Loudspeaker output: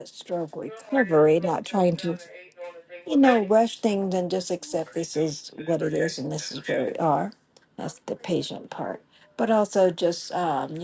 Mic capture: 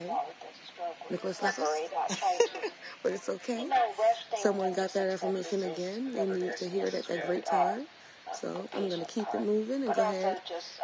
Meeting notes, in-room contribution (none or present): present